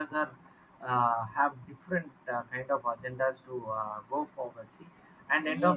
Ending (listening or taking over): taking over